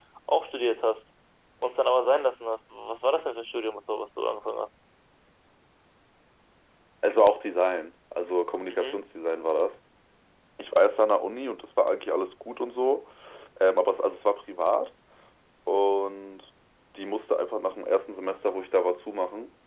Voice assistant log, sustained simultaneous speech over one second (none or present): none